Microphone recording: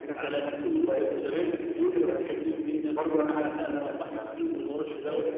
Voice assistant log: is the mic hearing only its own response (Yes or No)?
Yes